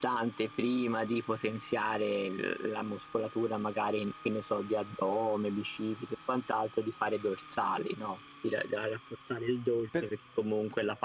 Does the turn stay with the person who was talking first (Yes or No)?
Yes